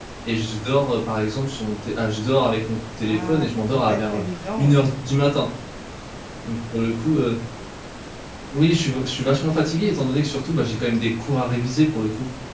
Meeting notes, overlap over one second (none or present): present